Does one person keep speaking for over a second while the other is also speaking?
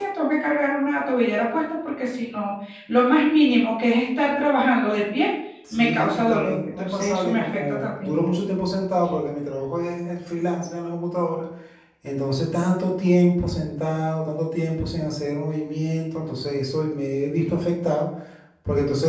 Yes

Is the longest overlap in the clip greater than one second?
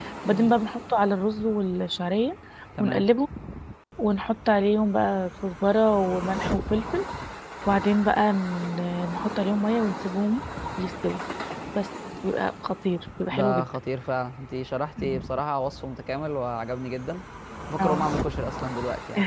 No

